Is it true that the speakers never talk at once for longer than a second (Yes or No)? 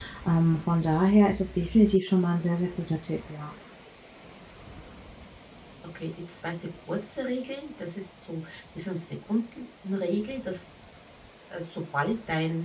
Yes